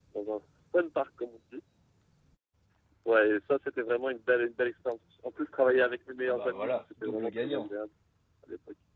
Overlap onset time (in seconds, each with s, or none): 6.2 s